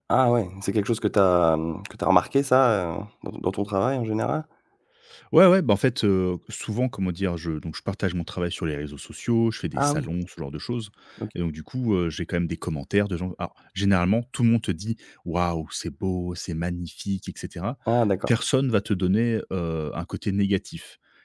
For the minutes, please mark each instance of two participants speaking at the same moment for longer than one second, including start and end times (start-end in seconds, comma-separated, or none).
none